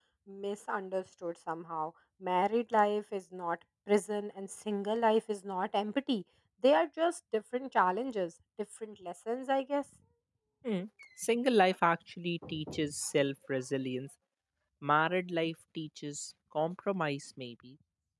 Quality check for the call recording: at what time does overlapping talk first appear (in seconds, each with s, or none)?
none